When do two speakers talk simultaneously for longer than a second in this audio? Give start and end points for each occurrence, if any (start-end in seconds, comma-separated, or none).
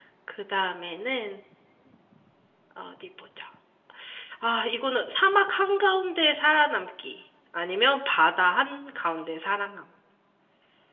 none